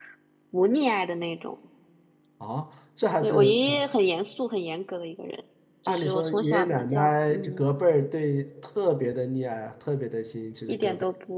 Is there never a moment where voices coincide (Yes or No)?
No